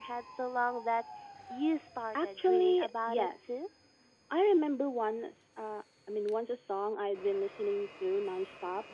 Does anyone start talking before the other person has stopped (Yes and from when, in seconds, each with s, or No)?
Yes, from 2.2 s